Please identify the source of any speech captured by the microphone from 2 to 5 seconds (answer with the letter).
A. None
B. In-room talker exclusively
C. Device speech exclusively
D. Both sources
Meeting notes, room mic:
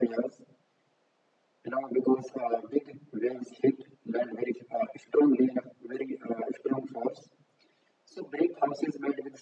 C